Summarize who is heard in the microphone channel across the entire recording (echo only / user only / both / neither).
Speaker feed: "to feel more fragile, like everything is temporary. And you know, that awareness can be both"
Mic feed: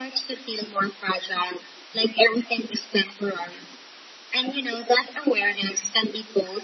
echo only